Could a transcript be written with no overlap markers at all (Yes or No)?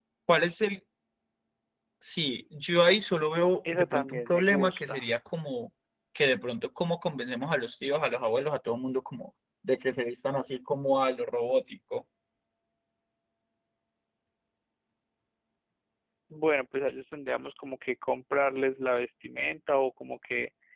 No